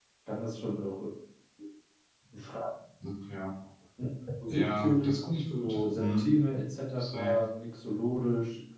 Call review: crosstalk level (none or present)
present